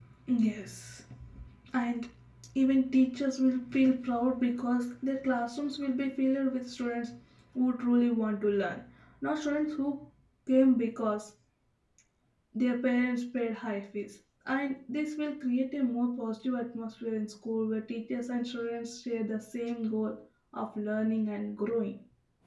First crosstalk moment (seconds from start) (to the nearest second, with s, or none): none